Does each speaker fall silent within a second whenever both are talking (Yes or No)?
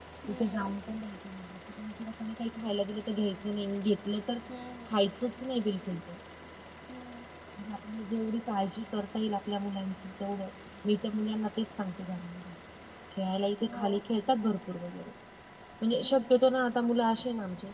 Yes